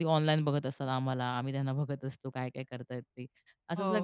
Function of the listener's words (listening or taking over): listening